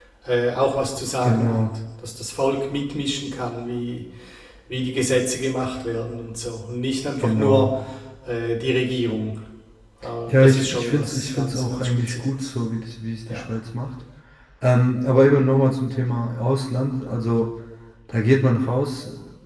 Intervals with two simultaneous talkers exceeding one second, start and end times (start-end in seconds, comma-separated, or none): 10.3-12.5